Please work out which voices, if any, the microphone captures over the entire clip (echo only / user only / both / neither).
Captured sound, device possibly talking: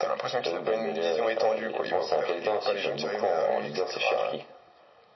echo only